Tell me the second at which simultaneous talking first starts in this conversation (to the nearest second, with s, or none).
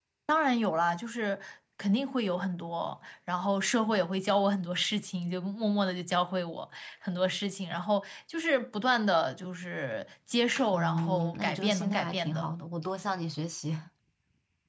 11 s